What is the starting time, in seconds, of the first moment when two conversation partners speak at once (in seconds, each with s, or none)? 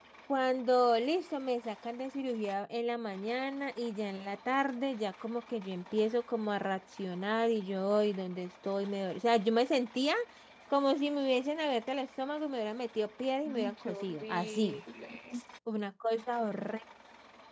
13.4 s